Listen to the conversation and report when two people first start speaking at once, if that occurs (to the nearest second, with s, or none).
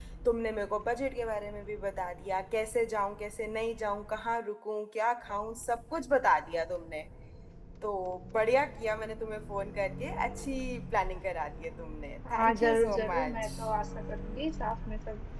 12 s